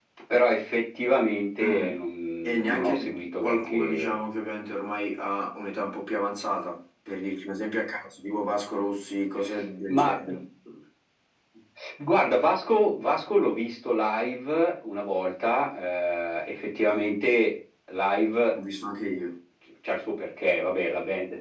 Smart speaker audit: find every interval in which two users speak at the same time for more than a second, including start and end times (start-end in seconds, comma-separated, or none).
2.4-4.2